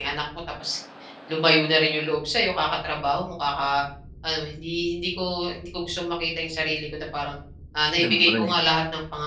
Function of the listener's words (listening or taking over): listening